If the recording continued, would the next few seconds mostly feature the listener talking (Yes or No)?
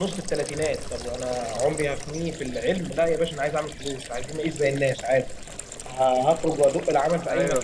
No